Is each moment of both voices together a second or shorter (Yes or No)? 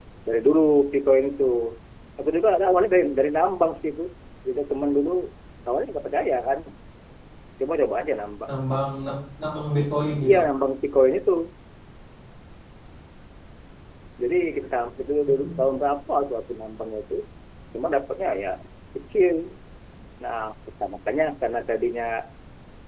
Yes